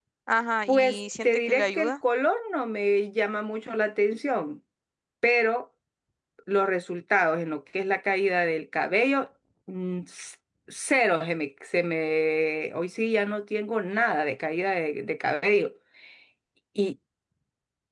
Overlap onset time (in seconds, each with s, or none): 0.7 s